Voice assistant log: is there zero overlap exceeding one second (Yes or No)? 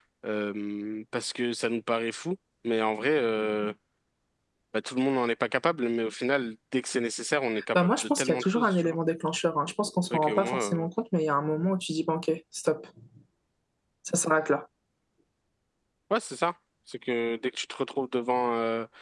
No